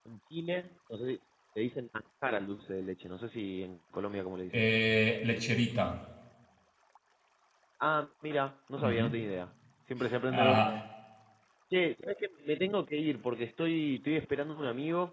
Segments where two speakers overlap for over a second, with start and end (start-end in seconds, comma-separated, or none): none